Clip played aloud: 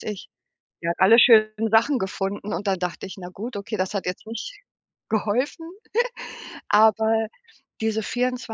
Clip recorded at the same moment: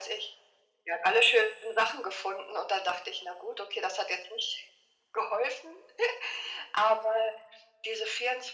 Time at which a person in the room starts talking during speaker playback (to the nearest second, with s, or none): none